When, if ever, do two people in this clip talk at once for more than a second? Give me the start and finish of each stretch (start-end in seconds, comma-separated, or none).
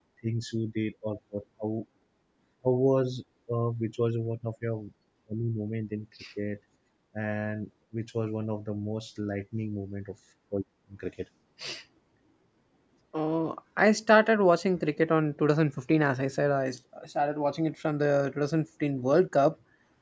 none